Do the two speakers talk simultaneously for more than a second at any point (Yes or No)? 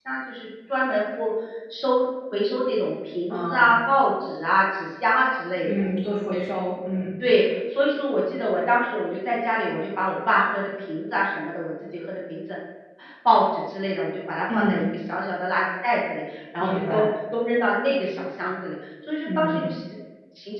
No